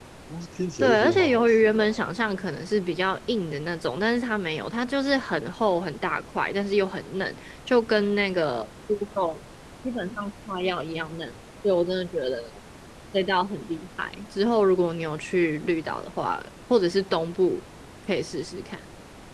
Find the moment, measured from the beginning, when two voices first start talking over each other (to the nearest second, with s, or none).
1 s